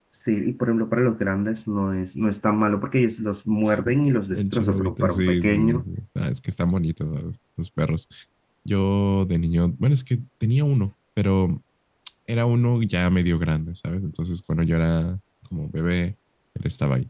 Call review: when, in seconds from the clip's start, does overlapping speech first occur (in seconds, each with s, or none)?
4.3 s